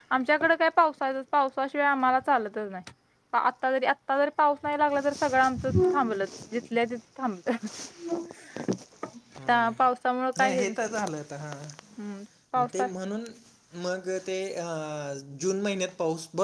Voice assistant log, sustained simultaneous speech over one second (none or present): none